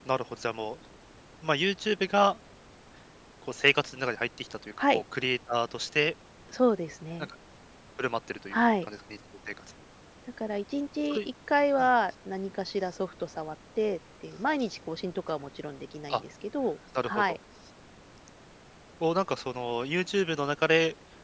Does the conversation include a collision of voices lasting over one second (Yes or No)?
No